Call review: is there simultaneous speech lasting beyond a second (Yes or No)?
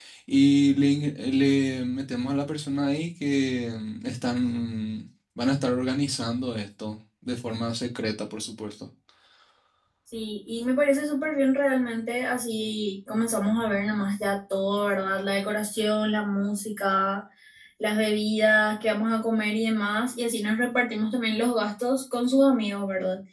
No